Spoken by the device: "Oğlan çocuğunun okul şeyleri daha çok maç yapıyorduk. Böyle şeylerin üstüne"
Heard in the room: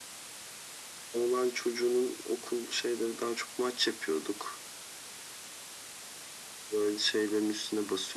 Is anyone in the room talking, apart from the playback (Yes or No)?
No